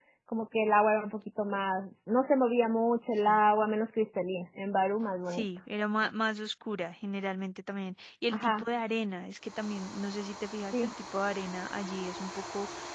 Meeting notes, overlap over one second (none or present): none